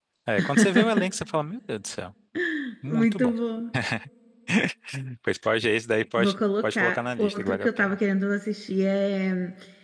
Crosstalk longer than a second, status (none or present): present